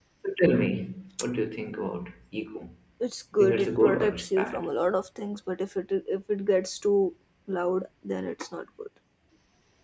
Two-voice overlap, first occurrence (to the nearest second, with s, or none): 3 s